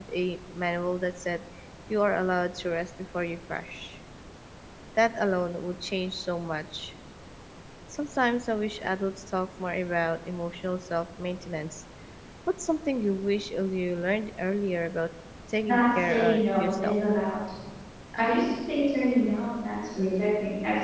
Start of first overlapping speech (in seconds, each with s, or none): 15.6 s